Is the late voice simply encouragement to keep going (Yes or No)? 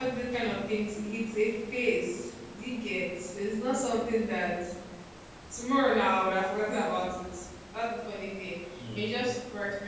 Yes